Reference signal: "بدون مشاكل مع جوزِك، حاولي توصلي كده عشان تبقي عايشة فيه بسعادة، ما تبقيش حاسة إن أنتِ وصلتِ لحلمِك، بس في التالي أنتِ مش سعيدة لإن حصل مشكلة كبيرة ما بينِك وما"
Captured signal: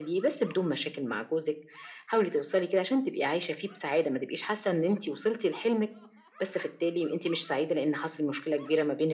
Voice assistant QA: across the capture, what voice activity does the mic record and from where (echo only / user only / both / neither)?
echo only